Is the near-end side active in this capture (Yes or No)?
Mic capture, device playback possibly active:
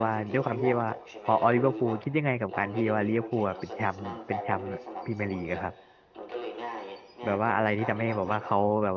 Yes